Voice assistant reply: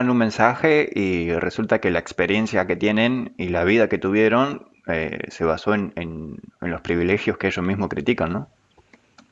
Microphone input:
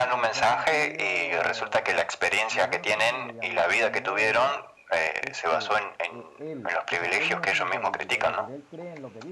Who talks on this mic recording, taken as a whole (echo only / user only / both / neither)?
both